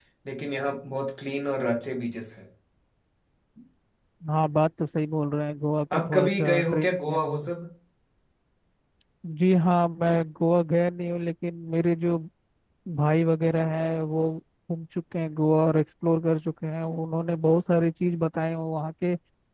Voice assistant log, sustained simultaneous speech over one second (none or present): present